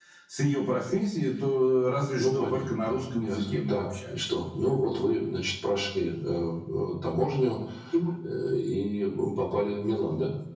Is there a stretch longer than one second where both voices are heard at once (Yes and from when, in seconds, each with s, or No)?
Yes, from 2.2 s